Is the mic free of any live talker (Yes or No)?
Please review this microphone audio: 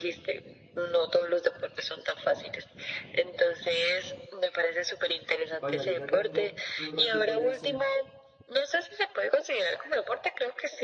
No